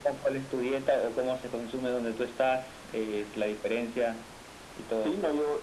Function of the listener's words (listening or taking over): taking over